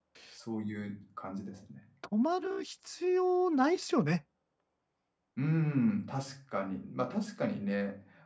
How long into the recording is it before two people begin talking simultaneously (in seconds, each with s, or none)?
none